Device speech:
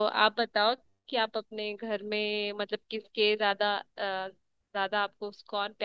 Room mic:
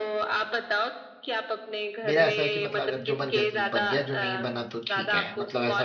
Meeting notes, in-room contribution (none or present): present